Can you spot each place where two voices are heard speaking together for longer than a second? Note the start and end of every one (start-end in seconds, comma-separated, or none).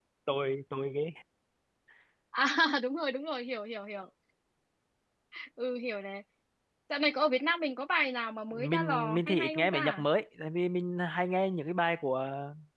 8.5-10.0